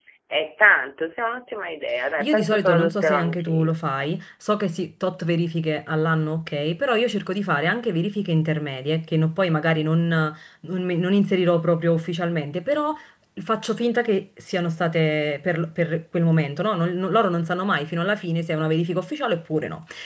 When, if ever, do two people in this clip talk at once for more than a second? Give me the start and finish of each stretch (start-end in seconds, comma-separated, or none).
2.2-3.8